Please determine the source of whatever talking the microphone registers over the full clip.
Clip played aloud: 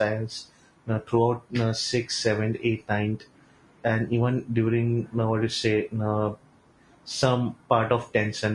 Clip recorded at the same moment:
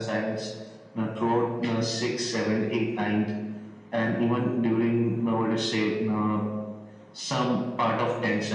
echo only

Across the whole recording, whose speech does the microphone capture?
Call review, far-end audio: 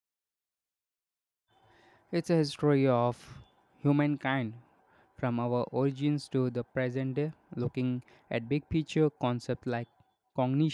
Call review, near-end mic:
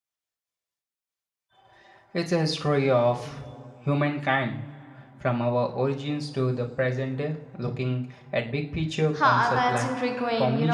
both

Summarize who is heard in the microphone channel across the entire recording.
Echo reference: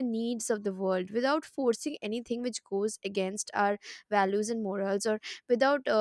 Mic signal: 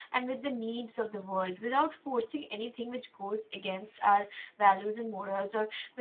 echo only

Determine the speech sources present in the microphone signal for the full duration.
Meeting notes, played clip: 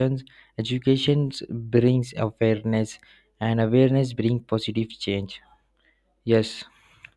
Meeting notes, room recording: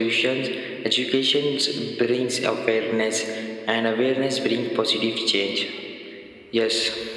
echo only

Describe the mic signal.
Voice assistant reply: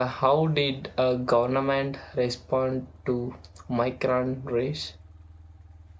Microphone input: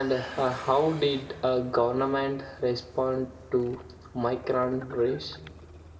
echo only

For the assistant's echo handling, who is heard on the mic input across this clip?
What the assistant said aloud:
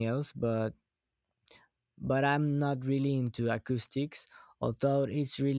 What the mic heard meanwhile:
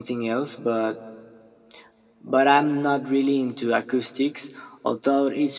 echo only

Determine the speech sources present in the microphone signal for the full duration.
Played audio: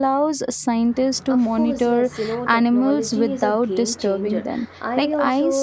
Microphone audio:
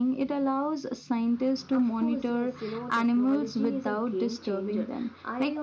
echo only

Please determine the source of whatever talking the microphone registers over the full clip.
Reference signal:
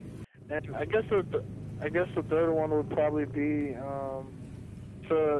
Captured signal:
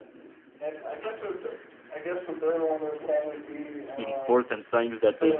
both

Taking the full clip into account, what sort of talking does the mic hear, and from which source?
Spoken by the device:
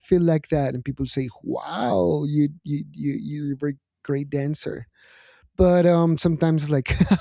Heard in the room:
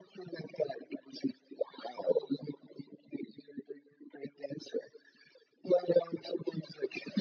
echo only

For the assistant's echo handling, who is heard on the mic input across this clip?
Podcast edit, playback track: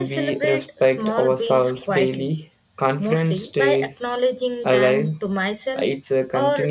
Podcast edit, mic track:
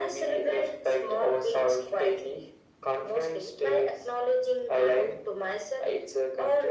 echo only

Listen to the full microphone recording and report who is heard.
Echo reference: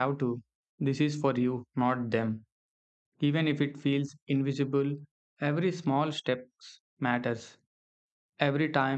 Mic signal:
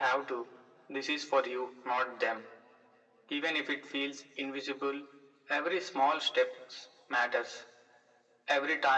echo only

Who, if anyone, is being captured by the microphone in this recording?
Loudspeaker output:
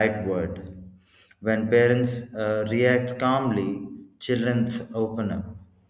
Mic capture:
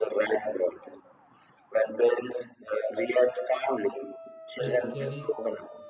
both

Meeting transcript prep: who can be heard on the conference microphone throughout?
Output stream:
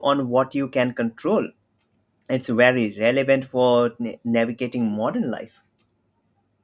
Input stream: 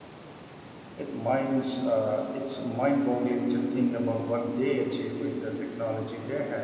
user only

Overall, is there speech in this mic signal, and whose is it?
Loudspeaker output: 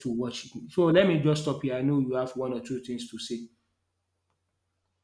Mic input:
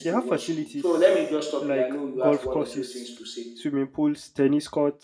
both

